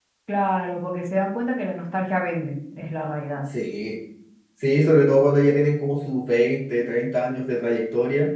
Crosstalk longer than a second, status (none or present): none